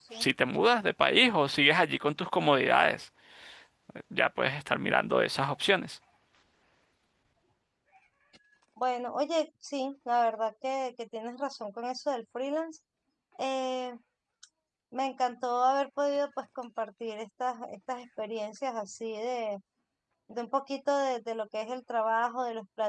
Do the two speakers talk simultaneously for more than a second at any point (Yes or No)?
No